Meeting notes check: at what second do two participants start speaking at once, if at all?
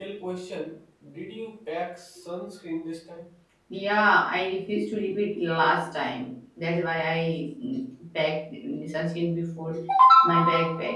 none

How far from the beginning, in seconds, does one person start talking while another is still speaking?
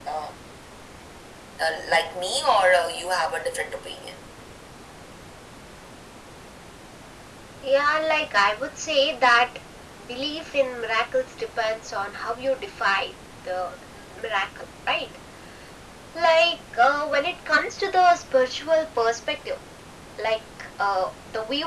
none

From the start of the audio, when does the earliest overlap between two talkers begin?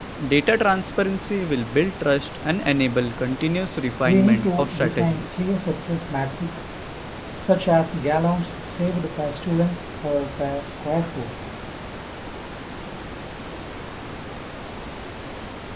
4 s

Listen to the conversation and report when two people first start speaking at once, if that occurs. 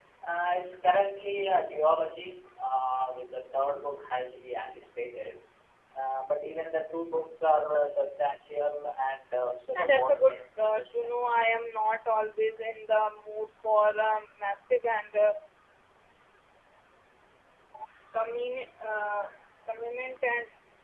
10 s

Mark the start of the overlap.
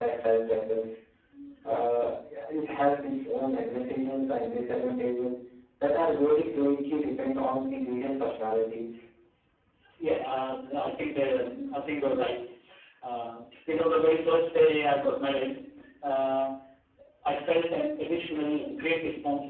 none

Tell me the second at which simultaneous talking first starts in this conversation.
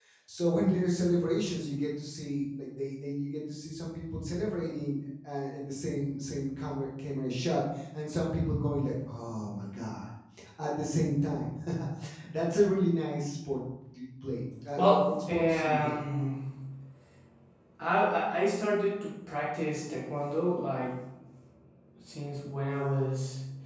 15 s

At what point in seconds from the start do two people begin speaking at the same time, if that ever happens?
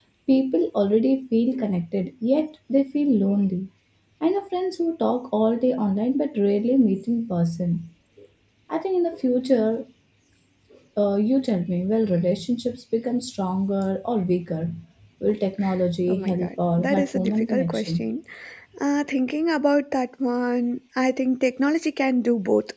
16 s

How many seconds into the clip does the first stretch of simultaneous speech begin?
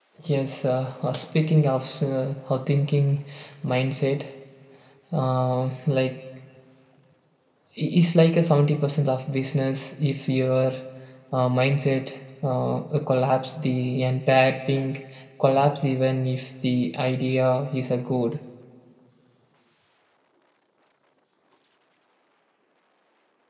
none

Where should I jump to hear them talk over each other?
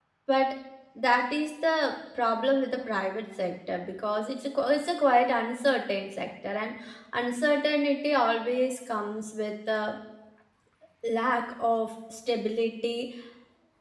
none

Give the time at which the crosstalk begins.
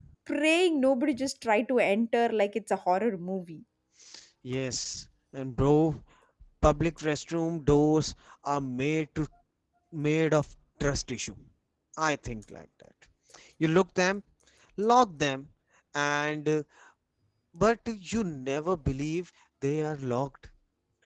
none

